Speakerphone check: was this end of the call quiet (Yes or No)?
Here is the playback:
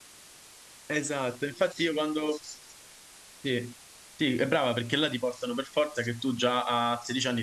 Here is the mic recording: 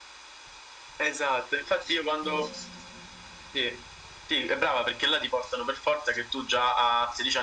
No